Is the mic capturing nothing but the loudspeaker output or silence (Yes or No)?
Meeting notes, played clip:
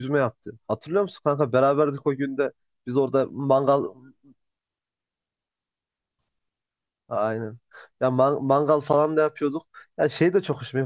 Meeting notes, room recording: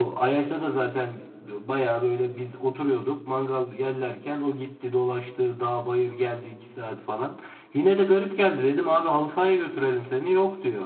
No